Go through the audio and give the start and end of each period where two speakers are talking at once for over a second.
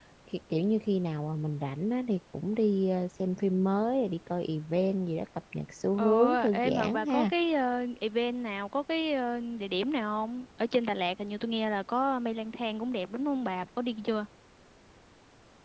6.0-7.3

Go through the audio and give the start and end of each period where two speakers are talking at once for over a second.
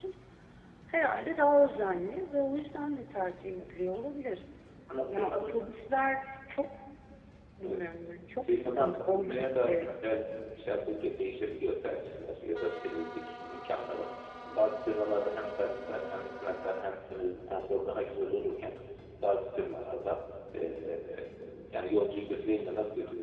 8.4-9.8

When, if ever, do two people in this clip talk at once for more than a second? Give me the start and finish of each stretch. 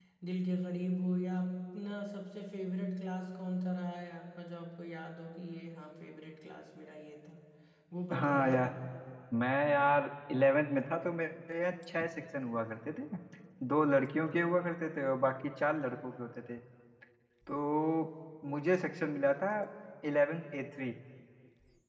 none

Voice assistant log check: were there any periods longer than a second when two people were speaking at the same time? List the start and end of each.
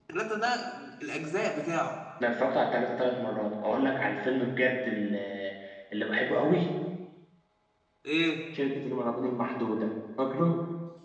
none

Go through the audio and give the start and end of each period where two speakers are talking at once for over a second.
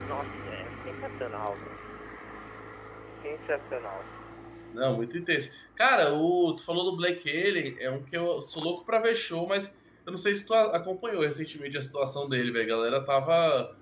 none

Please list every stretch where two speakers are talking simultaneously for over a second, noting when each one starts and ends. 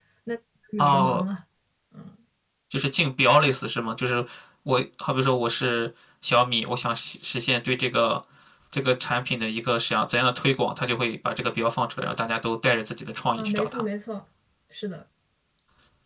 none

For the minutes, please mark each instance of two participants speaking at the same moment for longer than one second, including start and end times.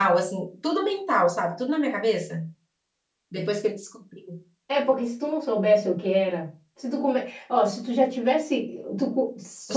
none

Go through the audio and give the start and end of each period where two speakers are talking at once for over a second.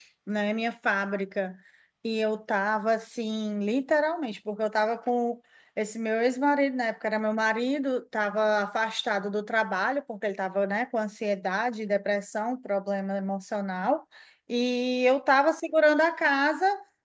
none

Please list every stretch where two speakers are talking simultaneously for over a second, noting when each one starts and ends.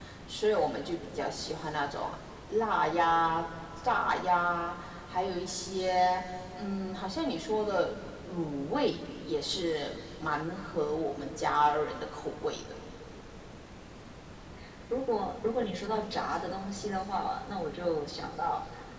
none

